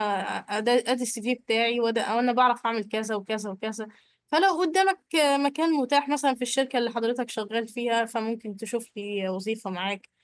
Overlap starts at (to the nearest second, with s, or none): none